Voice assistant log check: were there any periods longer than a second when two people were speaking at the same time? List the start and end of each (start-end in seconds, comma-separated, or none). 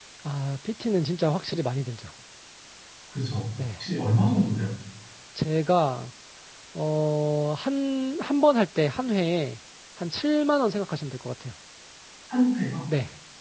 none